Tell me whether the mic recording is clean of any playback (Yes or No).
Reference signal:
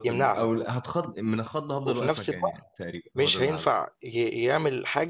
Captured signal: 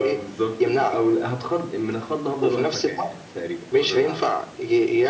No